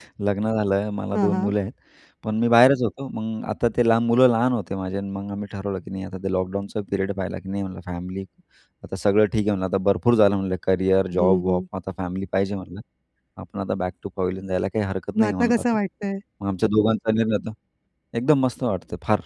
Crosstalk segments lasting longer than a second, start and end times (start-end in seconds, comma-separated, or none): none